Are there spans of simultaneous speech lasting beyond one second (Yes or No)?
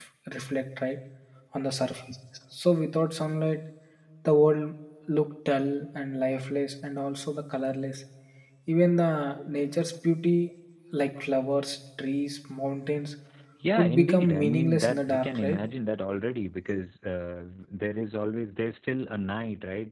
Yes